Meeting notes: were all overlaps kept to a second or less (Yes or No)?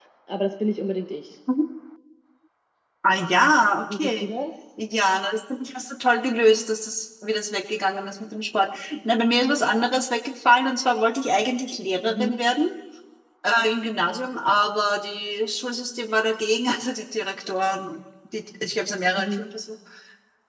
Yes